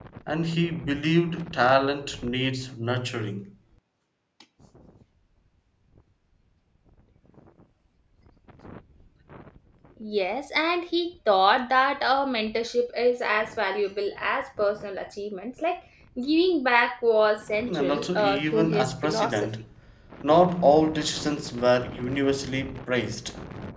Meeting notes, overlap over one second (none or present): present